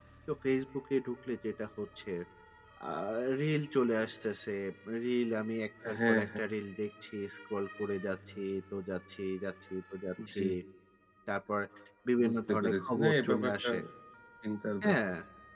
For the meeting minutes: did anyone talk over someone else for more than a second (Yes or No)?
Yes